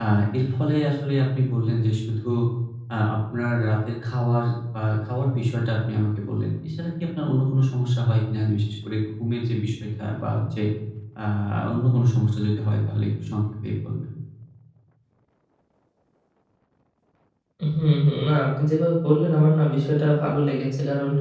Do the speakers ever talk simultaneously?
No

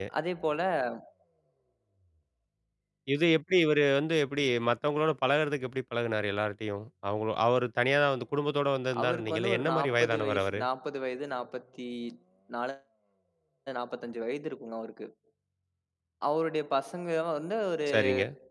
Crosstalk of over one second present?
Yes, from 9.0 s

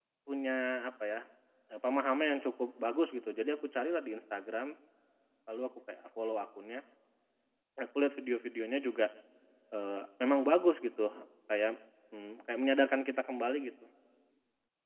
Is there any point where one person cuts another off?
No

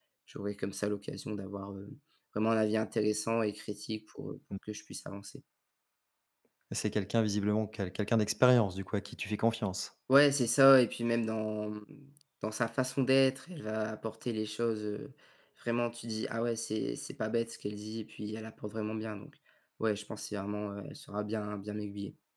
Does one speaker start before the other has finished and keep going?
No

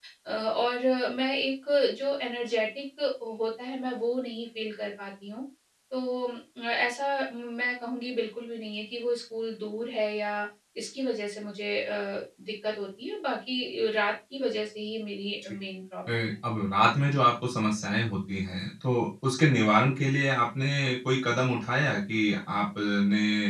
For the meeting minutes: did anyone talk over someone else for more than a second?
No

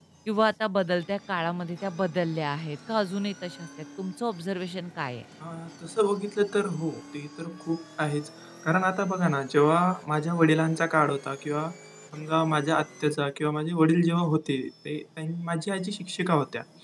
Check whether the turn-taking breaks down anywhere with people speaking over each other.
No

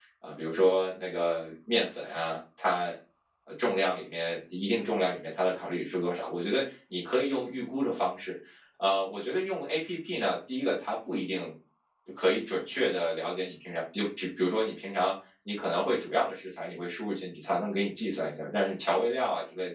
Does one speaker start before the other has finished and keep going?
No

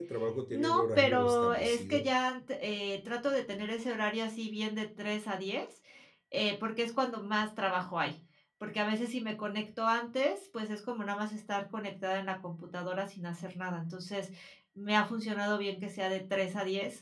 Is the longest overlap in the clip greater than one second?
Yes, from 0.5 s

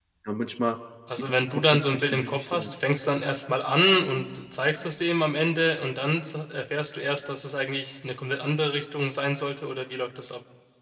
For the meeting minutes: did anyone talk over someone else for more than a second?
Yes, from 1.1 s

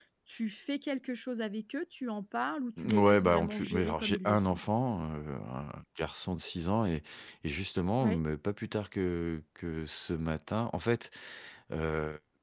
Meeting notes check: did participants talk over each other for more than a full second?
Yes, from 2.8 s

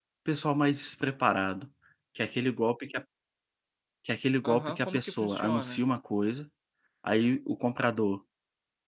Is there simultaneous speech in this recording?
Yes, from 4.4 s

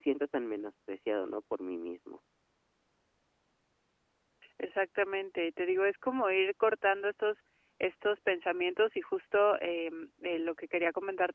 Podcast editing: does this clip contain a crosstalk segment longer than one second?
No

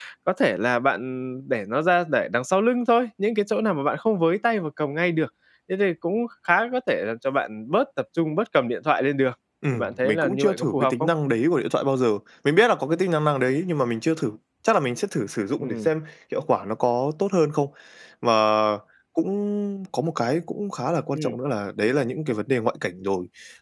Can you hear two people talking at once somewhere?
Yes, from 9.7 s

